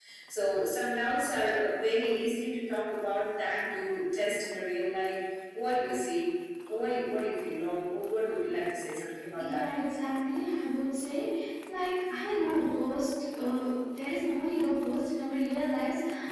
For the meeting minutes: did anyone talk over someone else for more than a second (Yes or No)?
No